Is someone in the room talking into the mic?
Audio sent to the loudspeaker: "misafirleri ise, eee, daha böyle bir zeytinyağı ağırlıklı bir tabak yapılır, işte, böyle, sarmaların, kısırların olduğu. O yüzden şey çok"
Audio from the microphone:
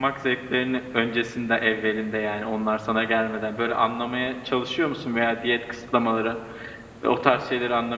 Yes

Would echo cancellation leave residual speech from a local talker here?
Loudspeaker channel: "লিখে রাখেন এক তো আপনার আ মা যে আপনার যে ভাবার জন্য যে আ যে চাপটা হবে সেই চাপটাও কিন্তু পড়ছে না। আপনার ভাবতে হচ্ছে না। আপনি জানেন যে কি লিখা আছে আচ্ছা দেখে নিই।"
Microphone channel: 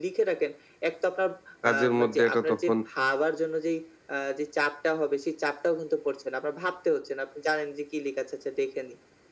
Yes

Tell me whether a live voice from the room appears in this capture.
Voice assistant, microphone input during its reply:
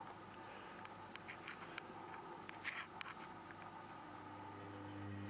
No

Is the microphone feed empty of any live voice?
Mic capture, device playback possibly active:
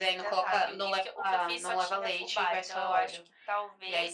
Yes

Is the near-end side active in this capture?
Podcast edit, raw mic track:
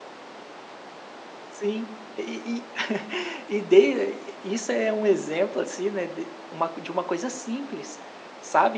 Yes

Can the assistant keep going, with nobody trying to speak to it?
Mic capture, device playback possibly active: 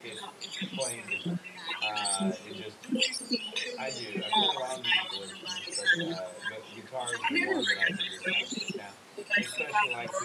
No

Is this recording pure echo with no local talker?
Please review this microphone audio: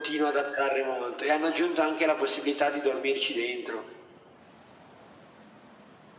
Yes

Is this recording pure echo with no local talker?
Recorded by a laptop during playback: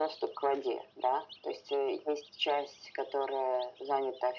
Yes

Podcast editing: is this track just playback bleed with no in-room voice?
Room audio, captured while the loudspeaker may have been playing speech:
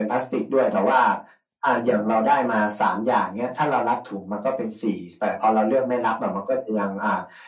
Yes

